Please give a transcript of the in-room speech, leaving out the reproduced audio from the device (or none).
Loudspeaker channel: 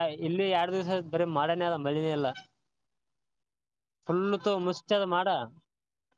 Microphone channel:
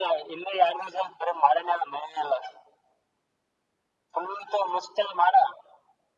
none